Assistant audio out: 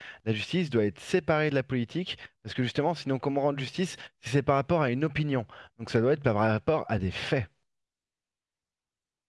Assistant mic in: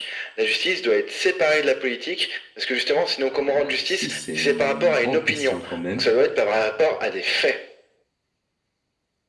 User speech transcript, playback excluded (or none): Euh, la justice, c'est une grande question quand même.